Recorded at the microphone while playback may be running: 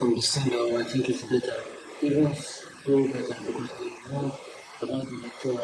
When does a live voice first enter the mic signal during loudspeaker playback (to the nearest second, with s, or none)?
none